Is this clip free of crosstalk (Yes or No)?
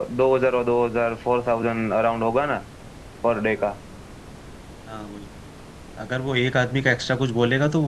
Yes